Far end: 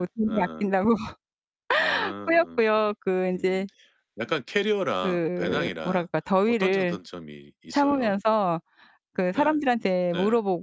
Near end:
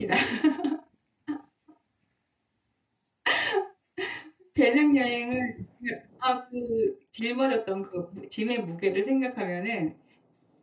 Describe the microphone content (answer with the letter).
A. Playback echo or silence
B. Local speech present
B